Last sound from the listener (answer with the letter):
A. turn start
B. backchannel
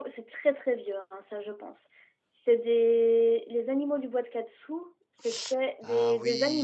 A